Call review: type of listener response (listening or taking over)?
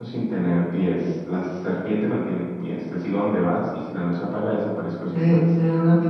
taking over